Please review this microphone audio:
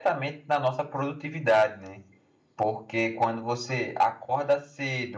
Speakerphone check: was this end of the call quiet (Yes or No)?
No